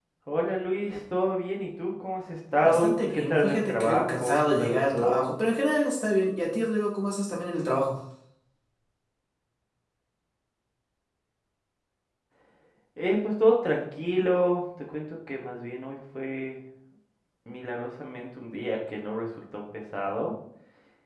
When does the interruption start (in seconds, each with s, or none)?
2.6 s